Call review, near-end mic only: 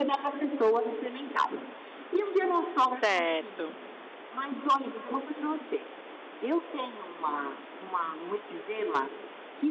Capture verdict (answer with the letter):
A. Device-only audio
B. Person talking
B